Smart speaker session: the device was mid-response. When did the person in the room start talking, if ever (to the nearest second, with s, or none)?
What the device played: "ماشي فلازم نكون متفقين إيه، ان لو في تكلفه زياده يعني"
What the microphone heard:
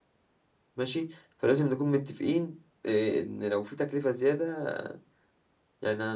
none